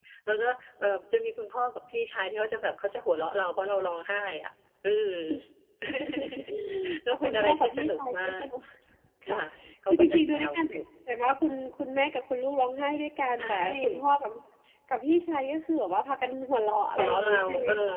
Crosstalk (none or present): present